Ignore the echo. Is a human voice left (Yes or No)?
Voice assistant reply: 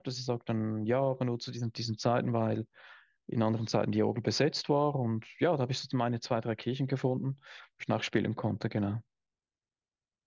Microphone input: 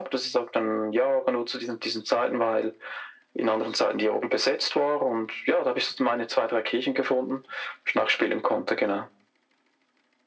No